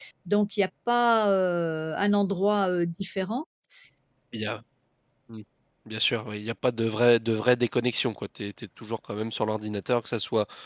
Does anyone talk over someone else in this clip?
No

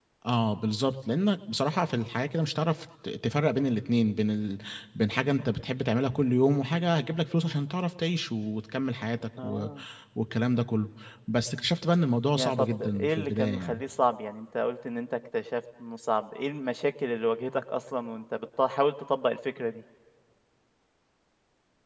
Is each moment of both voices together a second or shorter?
No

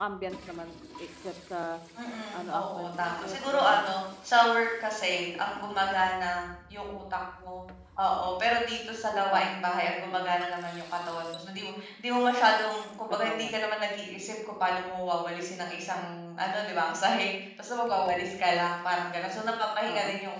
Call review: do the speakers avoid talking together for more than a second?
No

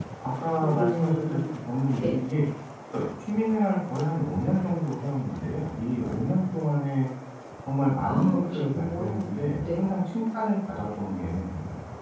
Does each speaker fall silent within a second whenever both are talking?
No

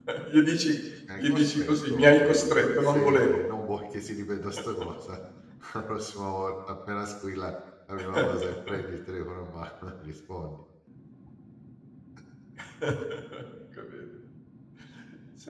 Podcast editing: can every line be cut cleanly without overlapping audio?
No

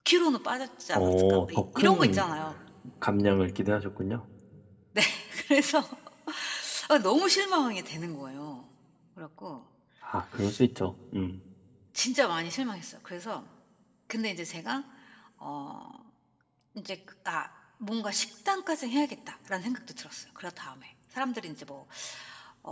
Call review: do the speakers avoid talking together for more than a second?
No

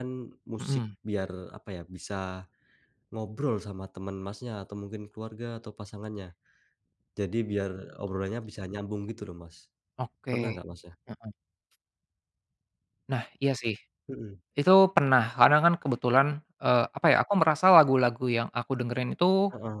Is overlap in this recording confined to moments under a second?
Yes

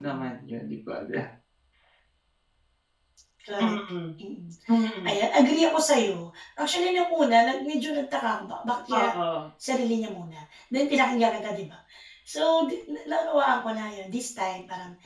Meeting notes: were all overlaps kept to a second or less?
Yes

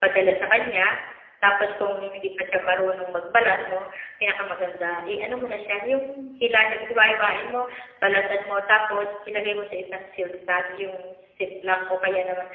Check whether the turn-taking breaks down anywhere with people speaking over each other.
No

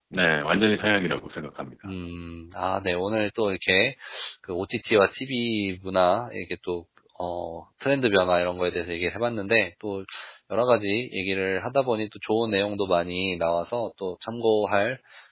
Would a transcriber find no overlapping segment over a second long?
Yes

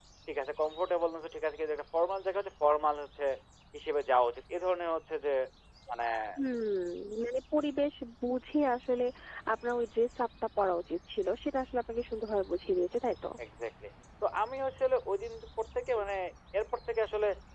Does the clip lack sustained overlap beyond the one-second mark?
Yes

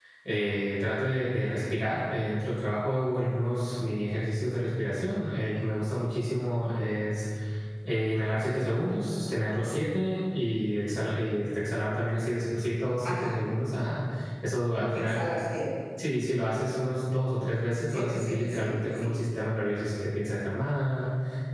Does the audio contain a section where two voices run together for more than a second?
Yes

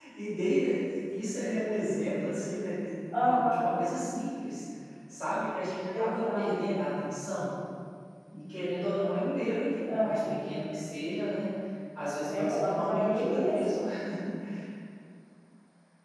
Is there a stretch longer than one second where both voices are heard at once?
Yes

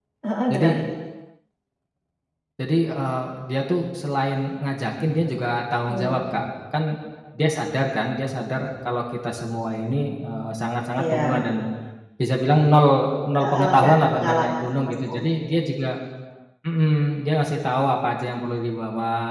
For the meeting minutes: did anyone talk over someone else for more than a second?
Yes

